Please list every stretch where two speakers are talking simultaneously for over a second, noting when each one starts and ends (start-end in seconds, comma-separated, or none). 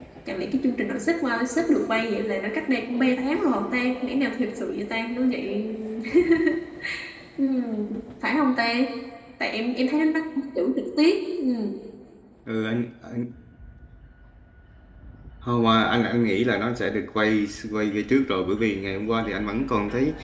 none